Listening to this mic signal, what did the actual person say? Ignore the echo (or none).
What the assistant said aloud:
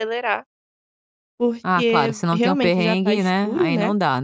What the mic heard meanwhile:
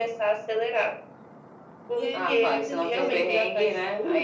E aí o que aconteceu?